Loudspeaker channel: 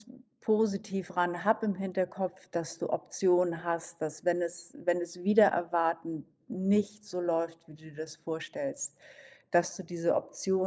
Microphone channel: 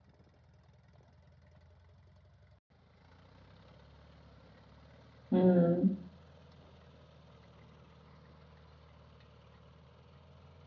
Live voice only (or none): Mhm.